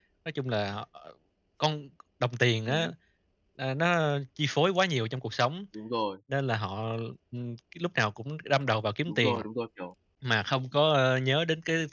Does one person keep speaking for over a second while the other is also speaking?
No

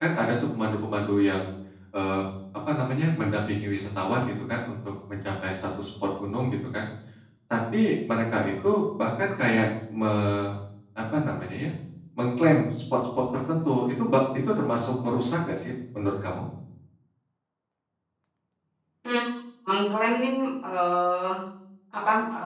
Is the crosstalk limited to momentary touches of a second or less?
Yes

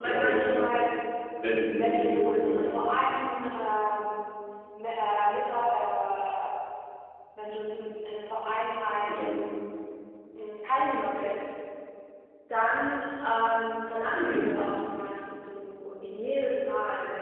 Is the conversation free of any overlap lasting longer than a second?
No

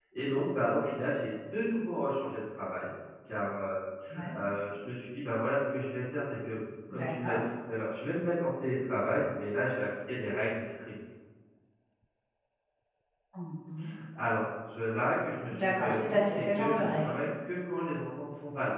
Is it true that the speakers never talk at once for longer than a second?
No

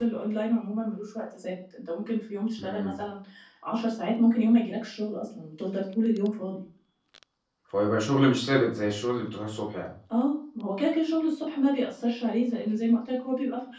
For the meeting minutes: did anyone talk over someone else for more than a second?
No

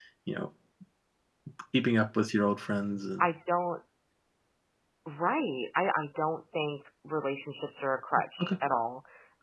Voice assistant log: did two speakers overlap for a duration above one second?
No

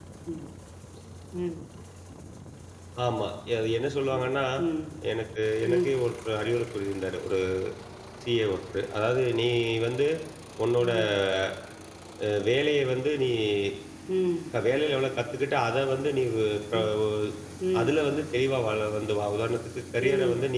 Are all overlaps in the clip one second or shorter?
Yes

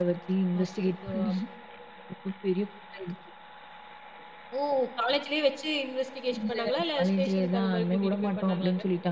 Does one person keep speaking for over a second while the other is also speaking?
Yes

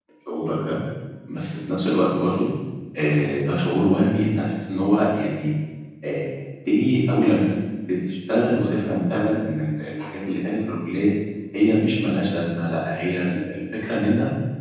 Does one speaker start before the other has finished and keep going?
No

